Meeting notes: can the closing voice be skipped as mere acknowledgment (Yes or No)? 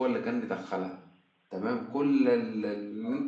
Yes